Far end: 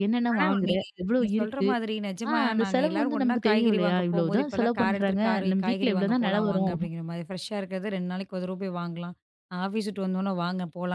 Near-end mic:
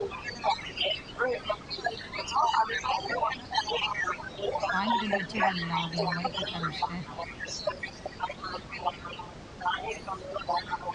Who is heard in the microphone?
both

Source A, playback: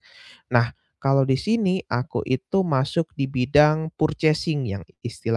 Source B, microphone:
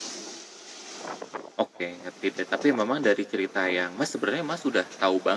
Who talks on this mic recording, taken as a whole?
user only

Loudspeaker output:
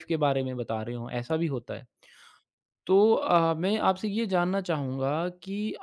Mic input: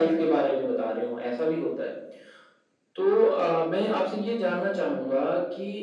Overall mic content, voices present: echo only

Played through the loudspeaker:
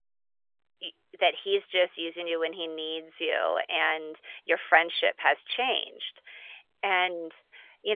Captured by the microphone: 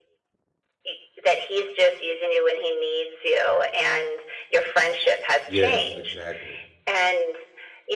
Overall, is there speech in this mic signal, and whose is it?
both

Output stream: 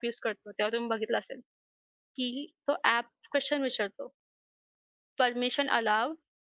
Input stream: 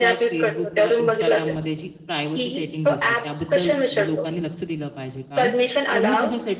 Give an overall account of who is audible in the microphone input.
both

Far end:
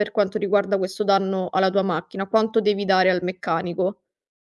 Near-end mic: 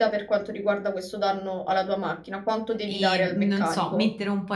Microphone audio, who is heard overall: both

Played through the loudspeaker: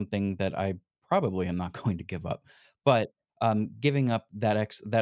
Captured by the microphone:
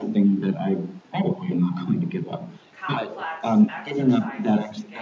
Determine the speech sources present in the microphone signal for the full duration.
both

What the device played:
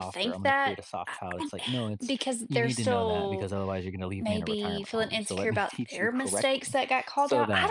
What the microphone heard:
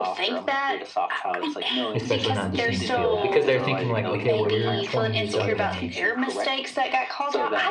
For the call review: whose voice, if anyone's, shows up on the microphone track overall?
both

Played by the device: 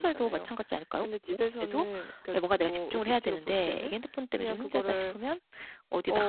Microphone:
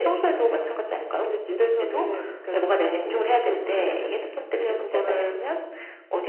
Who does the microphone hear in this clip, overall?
echo only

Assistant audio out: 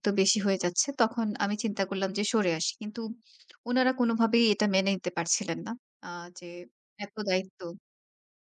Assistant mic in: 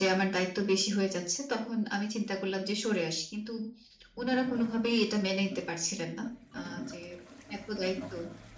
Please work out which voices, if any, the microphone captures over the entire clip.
echo only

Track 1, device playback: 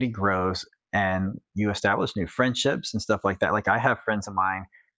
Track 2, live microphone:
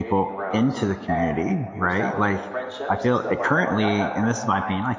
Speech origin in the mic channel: both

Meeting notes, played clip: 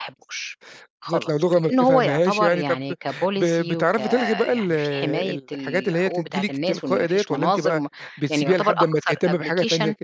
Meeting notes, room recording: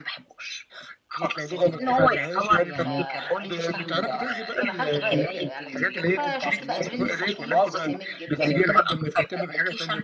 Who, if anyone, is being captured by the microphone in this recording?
both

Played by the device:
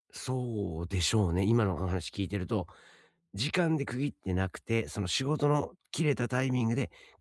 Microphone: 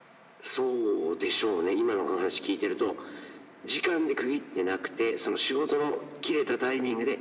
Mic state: echo only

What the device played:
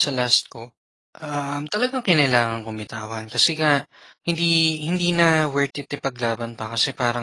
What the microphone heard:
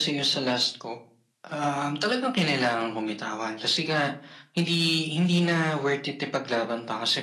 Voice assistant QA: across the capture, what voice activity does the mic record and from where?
echo only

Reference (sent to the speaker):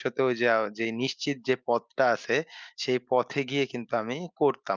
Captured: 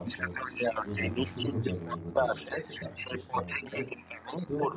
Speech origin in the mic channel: both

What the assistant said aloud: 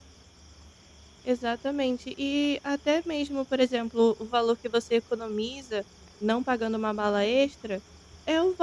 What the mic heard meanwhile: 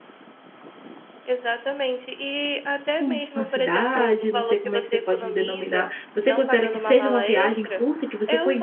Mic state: both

